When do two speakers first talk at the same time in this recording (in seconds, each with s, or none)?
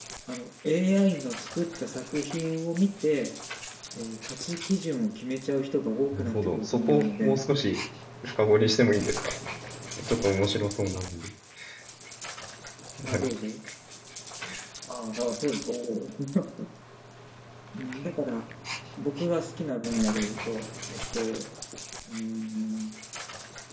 6.1 s